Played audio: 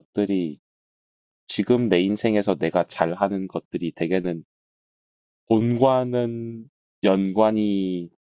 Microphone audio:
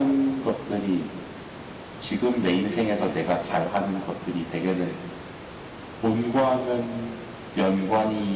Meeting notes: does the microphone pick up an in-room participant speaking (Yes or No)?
No